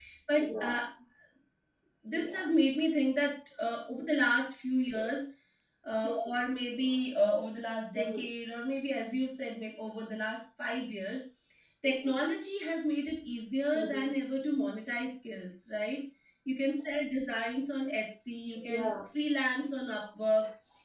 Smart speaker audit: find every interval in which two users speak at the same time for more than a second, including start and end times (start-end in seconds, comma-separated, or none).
none